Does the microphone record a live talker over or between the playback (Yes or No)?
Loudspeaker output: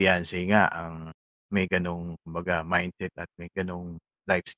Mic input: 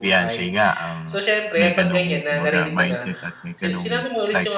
Yes